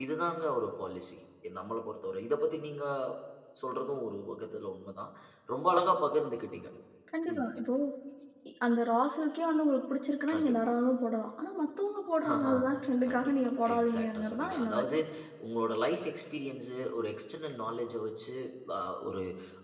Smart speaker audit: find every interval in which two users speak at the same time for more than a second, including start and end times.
13.1-15.0

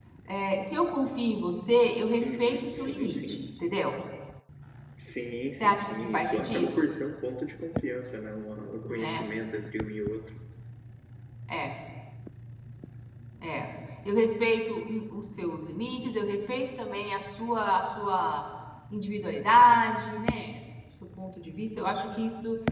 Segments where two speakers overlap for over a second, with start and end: 2.2-3.4, 5.6-6.9

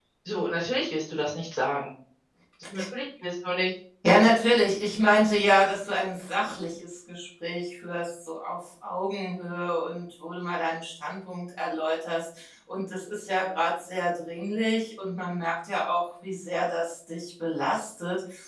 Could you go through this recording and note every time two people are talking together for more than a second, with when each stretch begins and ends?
none

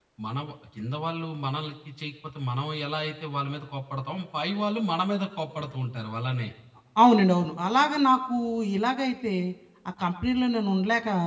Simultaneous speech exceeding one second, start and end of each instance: none

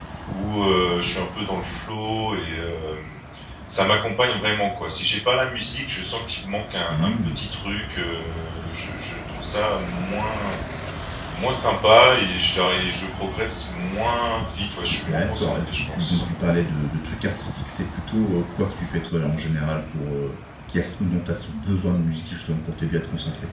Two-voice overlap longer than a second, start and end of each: 14.9-16.2

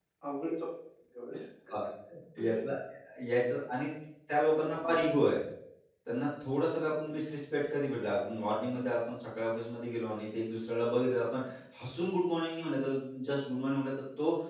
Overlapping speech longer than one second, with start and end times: none

